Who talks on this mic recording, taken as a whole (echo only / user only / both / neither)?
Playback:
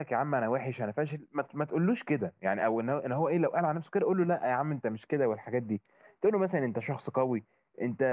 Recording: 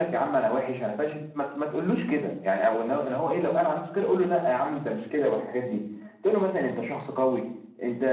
echo only